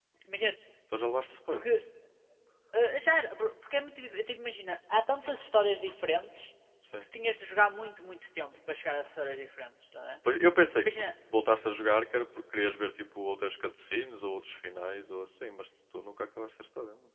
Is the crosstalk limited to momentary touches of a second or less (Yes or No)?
Yes